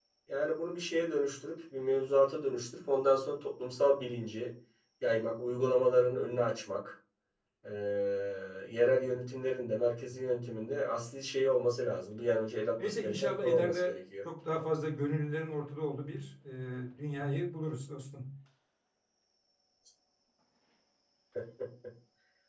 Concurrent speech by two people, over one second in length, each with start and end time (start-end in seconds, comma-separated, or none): 12.8-14.0